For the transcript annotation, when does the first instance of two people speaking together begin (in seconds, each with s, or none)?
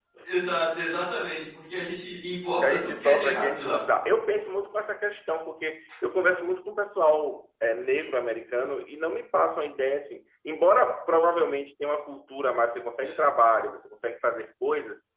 2.6 s